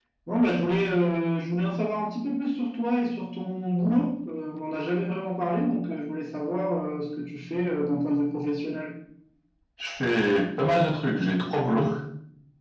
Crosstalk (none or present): none